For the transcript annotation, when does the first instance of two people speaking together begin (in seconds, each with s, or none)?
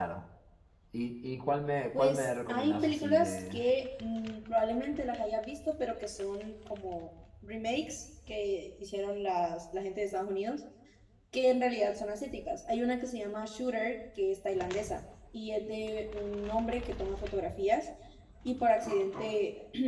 1.9 s